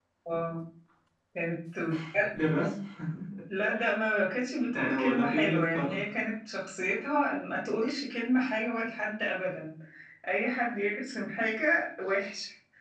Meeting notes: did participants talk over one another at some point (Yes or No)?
Yes